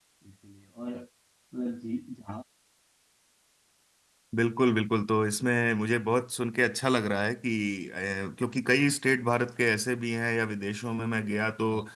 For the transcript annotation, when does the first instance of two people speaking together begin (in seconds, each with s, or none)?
none